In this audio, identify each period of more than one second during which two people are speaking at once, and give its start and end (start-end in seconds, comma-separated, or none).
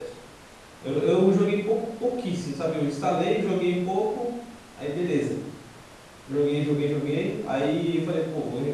none